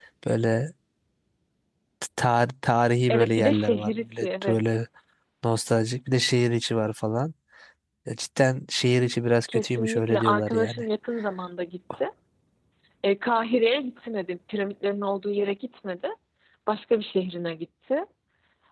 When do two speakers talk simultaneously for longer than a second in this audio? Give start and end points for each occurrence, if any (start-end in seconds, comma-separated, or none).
3.1-4.7, 9.5-10.8